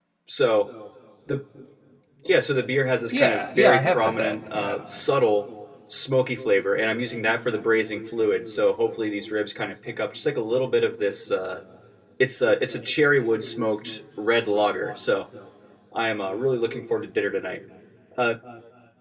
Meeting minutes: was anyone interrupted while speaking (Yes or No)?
Yes